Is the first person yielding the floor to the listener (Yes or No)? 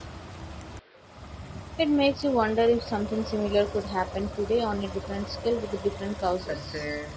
Yes